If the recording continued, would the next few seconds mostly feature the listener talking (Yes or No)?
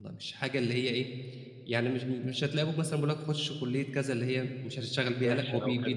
Yes